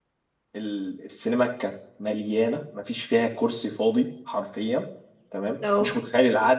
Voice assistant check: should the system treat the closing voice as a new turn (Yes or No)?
No